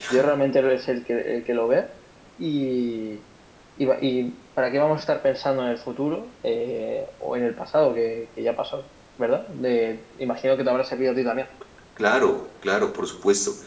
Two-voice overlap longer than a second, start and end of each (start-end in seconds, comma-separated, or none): none